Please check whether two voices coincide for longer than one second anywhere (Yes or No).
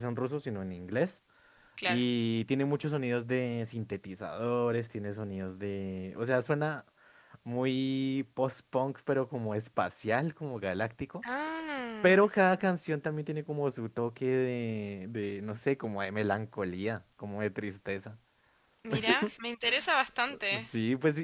No